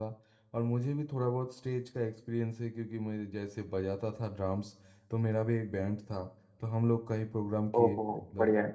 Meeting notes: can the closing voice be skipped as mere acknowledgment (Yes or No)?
Yes